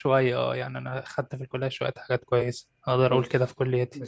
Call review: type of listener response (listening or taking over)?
taking over